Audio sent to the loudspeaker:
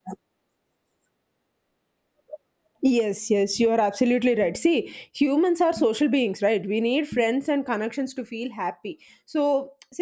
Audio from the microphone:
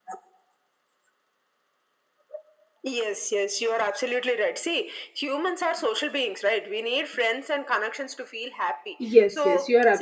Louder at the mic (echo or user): user